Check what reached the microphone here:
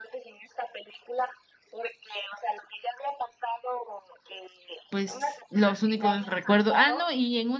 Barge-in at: 4.9 s

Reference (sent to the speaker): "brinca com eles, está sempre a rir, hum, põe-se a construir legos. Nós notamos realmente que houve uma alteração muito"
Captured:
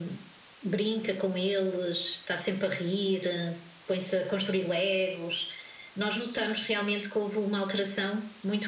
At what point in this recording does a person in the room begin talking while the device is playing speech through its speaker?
none

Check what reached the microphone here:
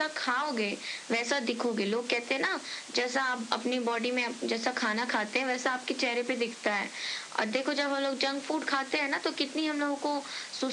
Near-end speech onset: none

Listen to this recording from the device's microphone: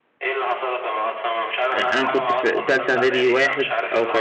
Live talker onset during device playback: 1.7 s

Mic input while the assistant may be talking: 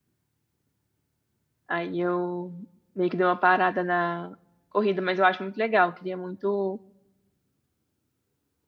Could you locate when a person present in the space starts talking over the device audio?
1.7 s

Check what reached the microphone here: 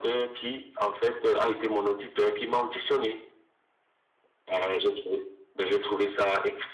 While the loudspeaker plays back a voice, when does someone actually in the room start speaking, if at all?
none

